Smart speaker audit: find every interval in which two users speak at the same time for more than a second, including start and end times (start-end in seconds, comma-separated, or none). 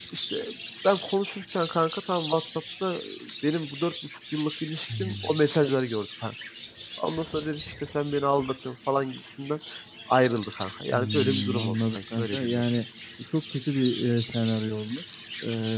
10.9-12.8